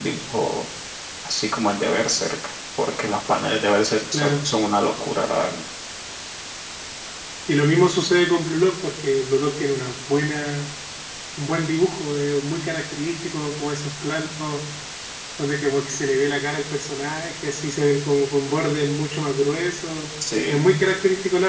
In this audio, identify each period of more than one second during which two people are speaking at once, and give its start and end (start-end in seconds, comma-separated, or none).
none